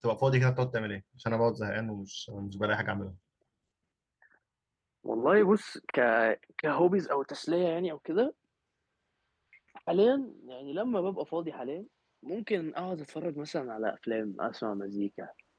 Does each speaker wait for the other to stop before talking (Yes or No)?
Yes